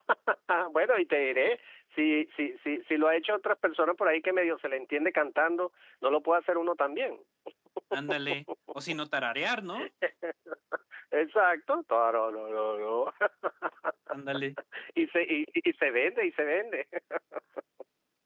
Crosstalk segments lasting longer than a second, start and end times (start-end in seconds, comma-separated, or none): none